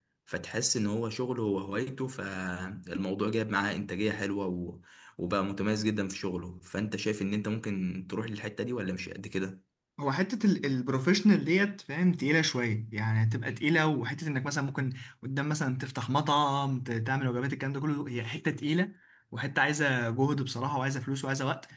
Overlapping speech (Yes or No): No